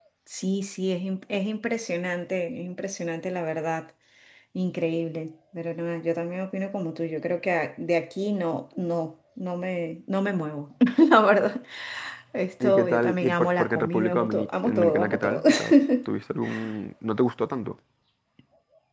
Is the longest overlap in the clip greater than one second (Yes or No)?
Yes